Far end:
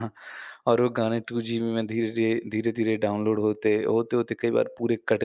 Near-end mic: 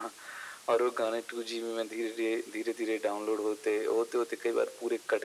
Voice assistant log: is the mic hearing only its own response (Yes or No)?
Yes